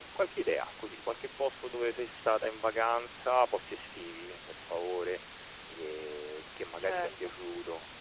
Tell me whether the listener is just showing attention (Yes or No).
Yes